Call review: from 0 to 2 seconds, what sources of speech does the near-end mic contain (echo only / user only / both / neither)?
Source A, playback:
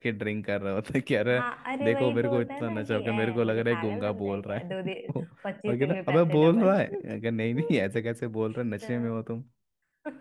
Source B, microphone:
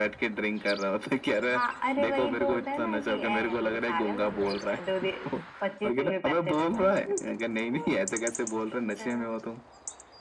echo only